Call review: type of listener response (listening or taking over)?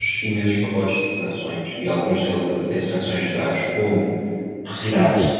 listening